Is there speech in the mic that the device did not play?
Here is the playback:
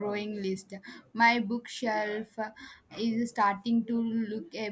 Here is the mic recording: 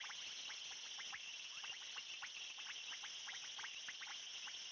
No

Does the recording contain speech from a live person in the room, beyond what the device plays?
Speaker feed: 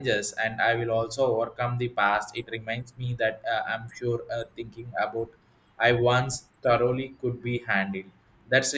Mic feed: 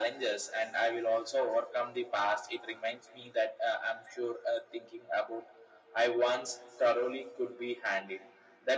No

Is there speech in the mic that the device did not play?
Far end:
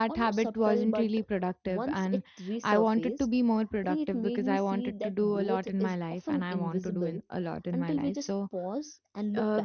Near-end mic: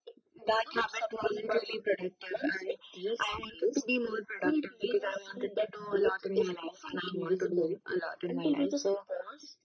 No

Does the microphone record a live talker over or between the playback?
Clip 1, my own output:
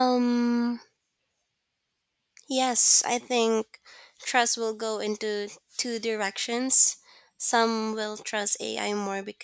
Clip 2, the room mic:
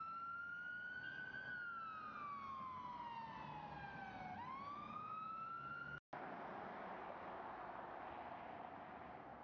No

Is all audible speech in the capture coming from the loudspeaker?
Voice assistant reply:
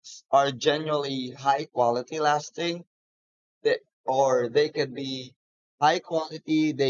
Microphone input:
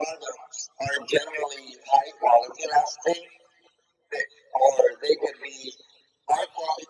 Yes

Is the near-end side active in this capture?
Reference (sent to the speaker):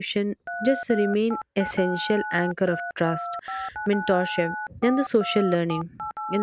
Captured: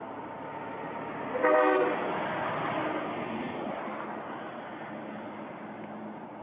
No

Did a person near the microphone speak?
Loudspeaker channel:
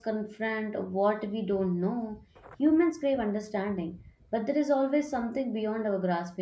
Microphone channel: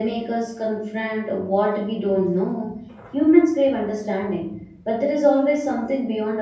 No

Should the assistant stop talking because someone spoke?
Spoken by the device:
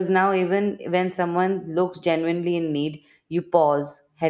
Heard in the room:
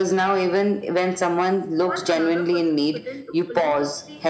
Yes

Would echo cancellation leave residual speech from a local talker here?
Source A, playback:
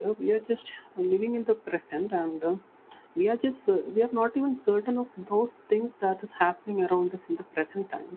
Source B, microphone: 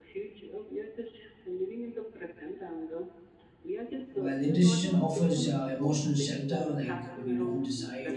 Yes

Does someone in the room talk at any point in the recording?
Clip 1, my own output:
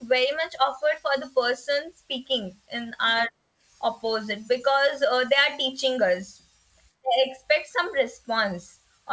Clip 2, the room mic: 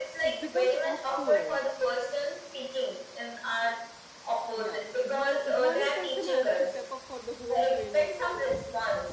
Yes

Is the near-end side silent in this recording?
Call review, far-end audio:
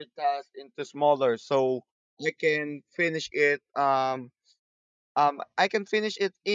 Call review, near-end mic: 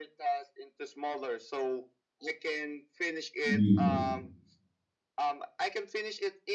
No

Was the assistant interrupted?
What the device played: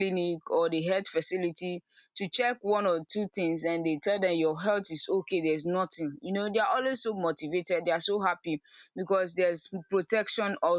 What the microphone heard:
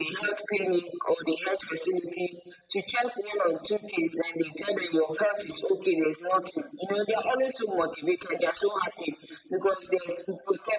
No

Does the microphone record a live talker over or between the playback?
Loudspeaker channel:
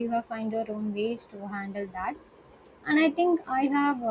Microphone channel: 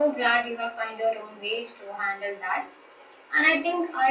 No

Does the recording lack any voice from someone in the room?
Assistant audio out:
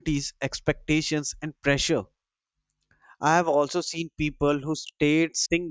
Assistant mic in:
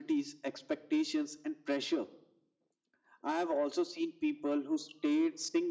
Yes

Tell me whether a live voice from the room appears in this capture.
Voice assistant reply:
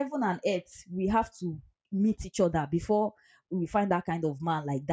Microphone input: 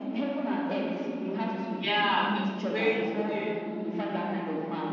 Yes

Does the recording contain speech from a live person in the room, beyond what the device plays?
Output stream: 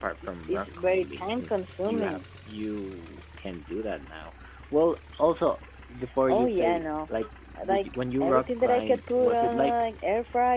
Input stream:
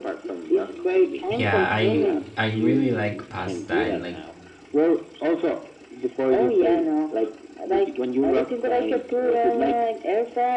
Yes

